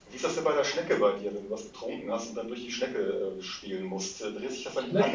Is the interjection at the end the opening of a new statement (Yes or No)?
No